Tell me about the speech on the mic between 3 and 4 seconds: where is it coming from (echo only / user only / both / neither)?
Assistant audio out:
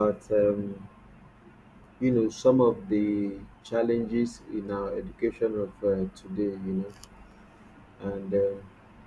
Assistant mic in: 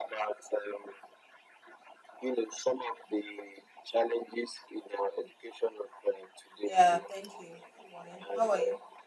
echo only